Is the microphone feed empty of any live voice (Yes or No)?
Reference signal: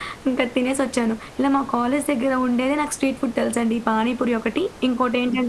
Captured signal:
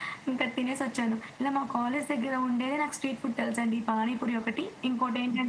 Yes